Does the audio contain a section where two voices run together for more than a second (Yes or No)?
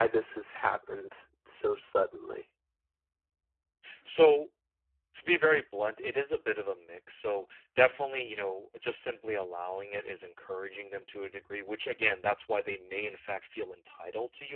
No